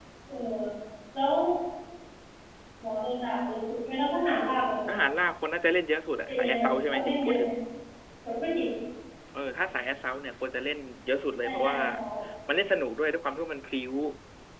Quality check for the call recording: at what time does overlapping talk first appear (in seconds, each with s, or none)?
6.3 s